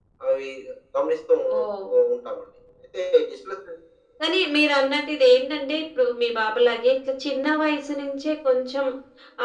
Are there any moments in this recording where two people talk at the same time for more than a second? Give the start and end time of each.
none

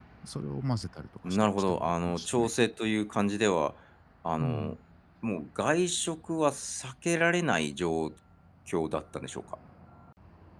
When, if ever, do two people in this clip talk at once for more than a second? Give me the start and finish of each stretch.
1.3-2.5

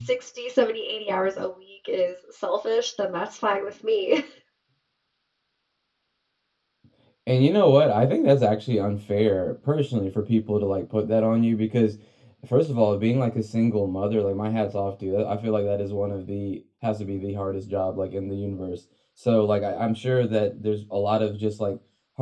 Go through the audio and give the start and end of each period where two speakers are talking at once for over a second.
none

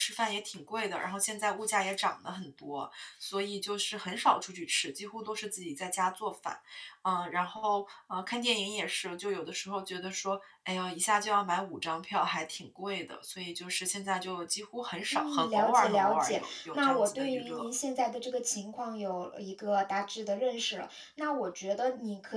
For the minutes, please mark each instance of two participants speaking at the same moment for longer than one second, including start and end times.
15.1-17.7

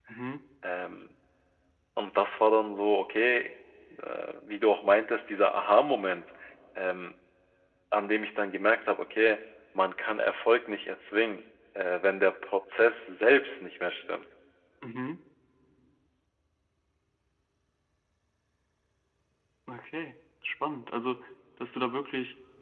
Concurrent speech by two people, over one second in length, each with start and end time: none

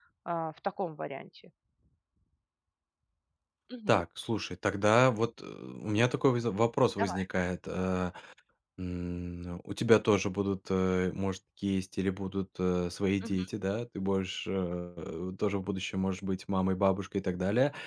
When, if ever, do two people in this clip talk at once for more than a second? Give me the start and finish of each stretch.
none

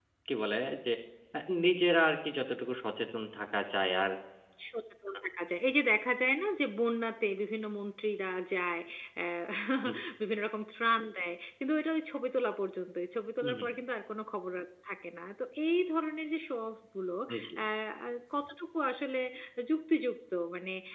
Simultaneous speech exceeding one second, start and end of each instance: none

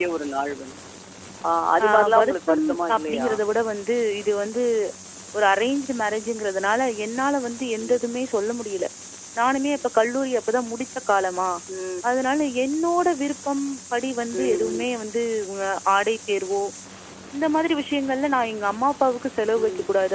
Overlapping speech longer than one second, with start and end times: 1.9-3.3

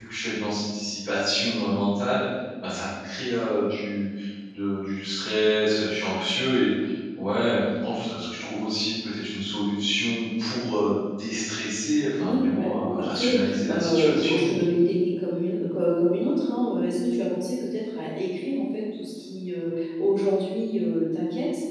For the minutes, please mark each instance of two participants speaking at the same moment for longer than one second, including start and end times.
12.2-14.6

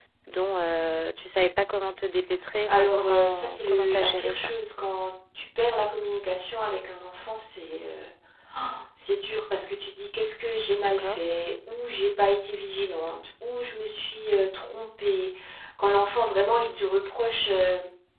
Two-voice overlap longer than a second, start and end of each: 2.7-4.5

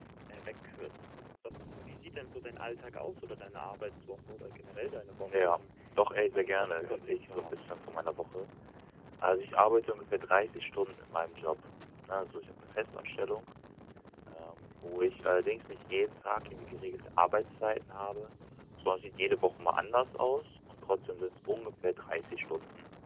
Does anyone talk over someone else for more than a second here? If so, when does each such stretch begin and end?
6.2-7.7

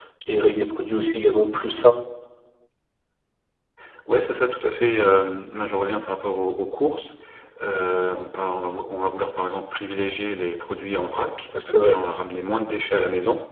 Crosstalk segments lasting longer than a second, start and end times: none

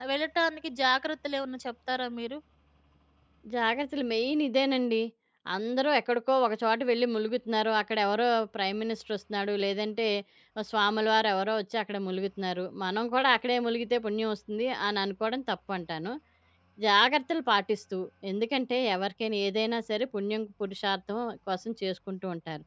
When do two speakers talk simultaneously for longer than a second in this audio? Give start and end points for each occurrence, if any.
none

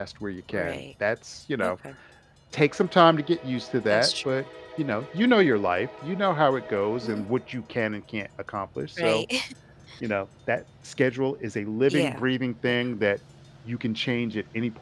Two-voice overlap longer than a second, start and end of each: none

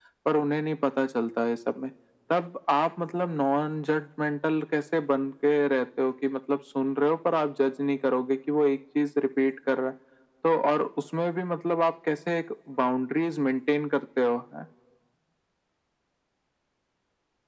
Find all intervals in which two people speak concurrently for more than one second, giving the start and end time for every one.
none

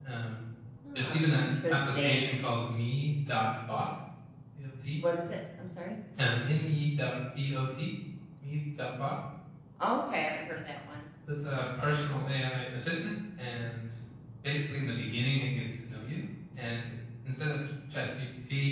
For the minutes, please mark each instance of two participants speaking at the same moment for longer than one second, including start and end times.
1.0-2.4

